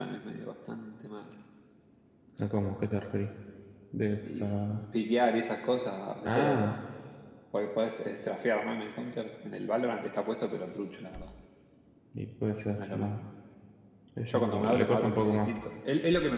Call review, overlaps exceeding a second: present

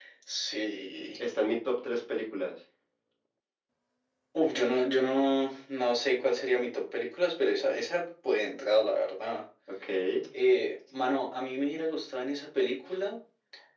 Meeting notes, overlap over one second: none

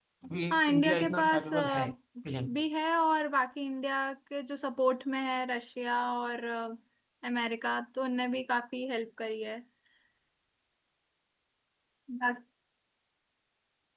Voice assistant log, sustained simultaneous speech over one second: present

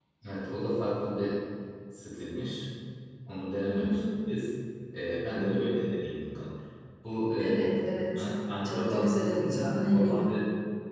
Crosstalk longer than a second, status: present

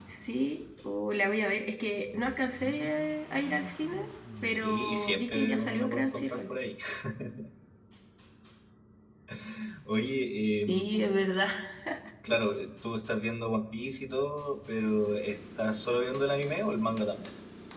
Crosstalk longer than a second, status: present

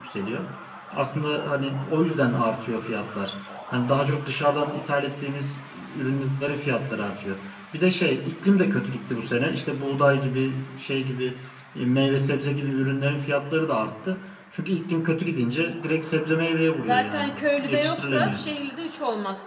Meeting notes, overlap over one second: present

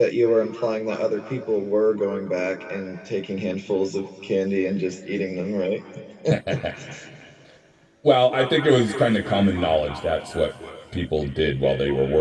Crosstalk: none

